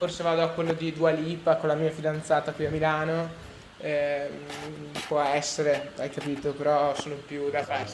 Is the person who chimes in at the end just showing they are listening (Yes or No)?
Yes